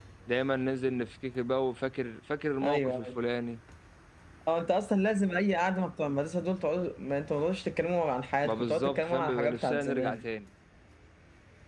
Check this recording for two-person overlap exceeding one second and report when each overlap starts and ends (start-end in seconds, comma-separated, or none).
8.4-10.2